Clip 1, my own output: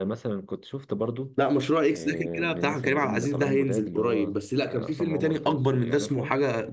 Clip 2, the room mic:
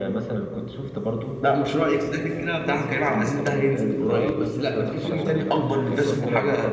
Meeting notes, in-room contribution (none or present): present